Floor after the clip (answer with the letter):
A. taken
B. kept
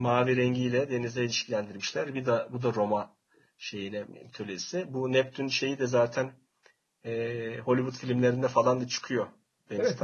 A